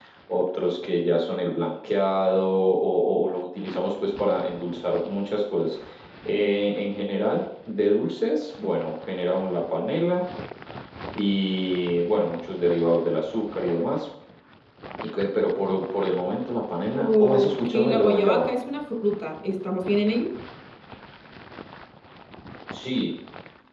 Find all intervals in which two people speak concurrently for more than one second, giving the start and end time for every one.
17.0-18.5

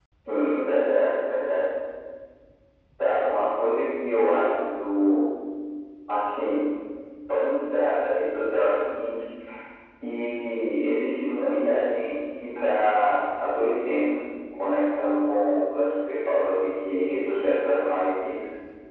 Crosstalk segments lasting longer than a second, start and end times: none

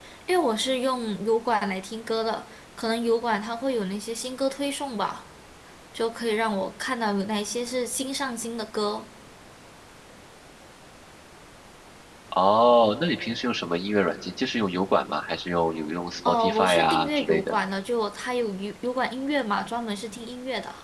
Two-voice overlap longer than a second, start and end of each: 16.3-17.5

